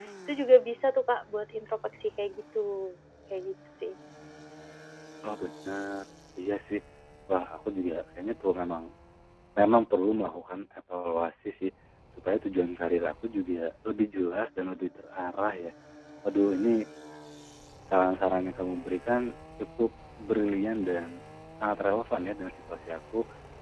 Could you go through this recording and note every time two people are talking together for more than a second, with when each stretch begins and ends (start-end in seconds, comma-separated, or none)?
none